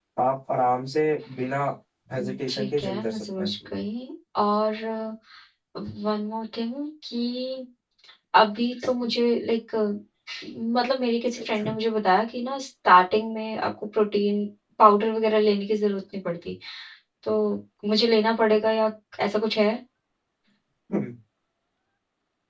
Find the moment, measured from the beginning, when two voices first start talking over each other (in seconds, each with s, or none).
2.1 s